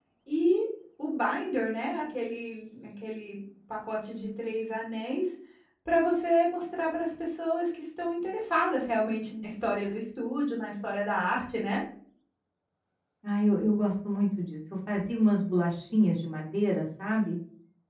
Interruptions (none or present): none